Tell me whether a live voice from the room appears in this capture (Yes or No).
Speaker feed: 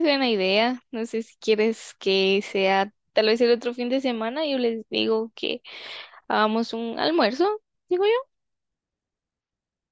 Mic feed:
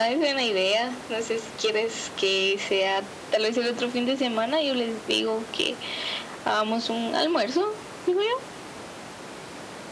No